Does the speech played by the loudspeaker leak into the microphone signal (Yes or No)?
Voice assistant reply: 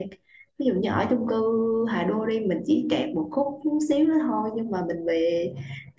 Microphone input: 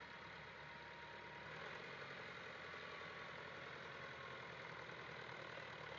No